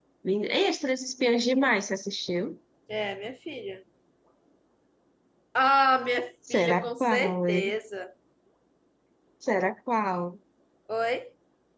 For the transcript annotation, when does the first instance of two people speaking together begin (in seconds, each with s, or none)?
6.5 s